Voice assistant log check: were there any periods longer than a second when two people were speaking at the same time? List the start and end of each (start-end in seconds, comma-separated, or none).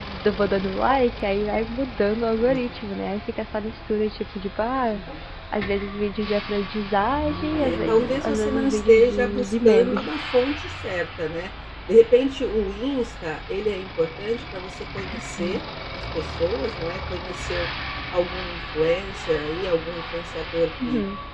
7.6-10.1